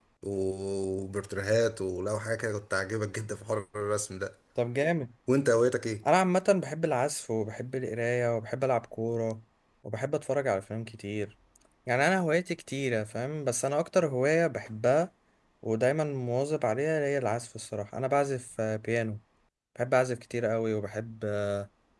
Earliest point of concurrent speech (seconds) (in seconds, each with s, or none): none